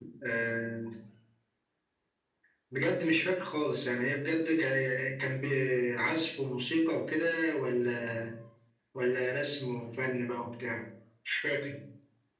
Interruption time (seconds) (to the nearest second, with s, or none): none